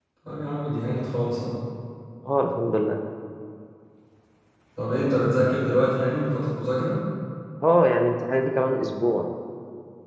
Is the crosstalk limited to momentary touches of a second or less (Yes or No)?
Yes